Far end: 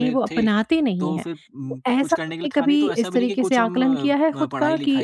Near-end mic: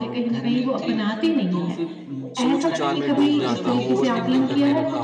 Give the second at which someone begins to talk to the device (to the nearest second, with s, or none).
2 s